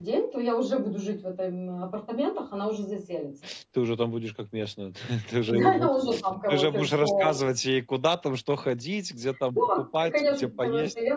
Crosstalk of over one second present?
Yes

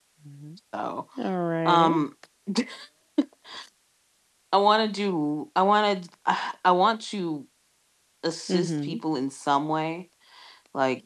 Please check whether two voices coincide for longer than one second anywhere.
No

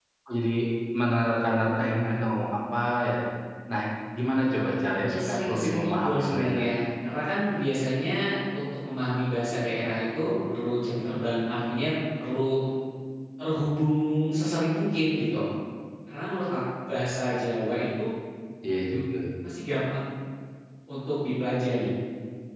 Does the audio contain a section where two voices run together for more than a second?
Yes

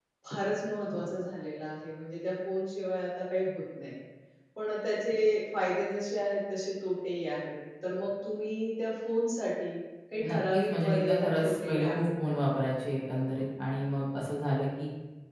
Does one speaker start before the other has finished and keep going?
Yes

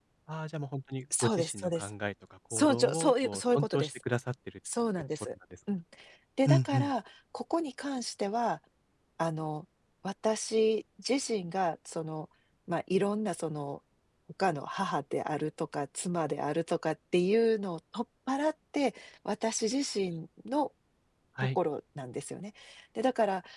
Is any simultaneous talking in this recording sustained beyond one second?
Yes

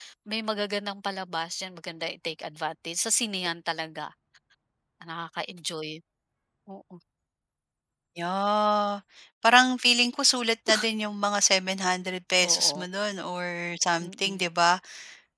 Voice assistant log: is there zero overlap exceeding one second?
Yes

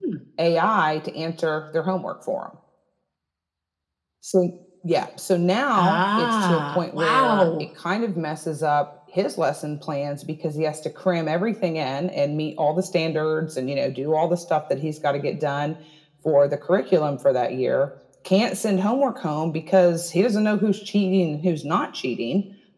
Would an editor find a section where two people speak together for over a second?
Yes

